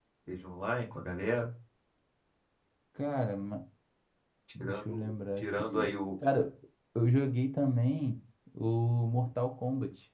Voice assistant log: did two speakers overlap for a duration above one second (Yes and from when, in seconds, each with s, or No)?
Yes, from 4.6 s